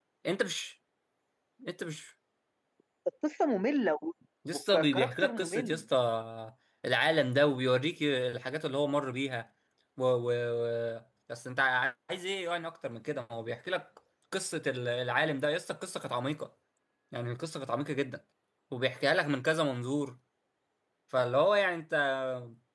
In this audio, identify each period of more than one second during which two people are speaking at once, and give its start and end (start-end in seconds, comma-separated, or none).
4.5-5.8